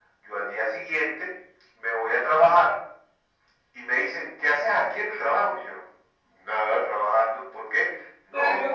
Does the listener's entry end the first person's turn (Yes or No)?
No